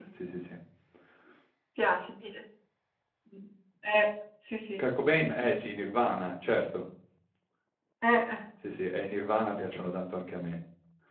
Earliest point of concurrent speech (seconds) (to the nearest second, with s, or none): none